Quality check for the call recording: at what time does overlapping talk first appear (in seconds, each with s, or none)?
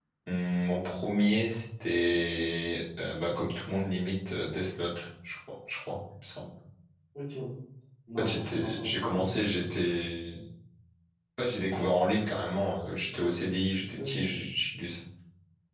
8.2 s